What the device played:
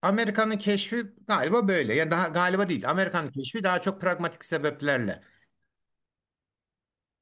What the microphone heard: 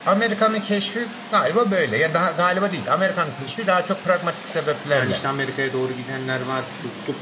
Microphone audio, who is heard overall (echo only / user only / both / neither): both